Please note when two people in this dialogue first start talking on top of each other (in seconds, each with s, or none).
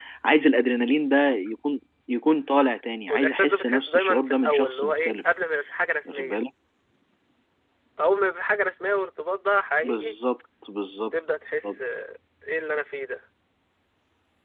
3.1 s